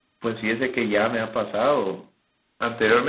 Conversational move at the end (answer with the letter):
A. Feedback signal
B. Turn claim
A